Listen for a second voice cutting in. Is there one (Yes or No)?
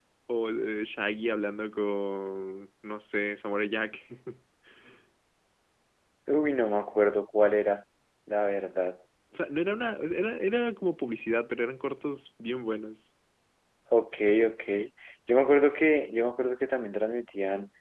No